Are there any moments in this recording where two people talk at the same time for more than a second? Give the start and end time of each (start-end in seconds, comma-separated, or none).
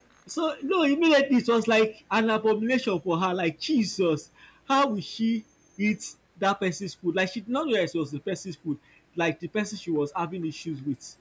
none